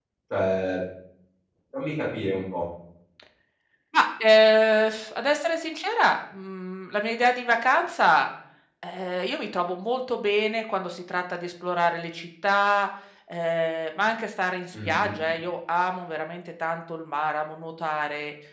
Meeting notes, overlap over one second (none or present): none